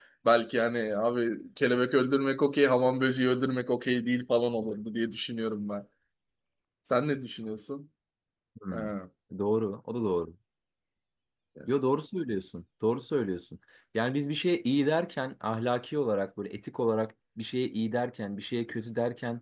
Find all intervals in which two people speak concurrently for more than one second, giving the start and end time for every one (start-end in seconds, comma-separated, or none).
none